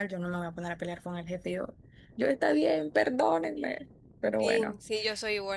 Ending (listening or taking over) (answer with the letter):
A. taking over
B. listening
A